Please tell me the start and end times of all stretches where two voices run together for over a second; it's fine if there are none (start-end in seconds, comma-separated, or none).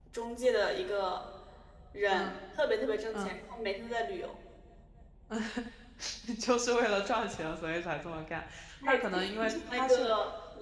8.8-10.1